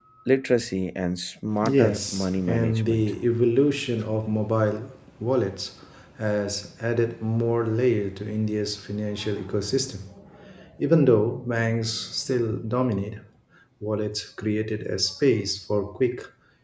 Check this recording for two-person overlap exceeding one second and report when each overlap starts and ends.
1.8-3.1

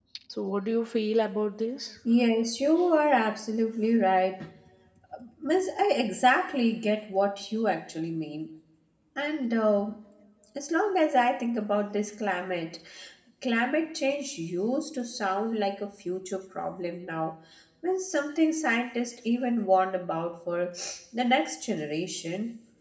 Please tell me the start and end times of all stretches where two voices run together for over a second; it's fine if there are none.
none

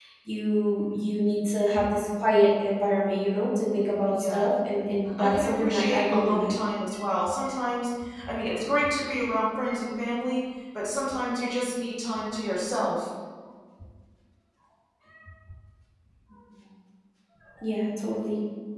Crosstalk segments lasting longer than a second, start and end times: 5.0-6.5

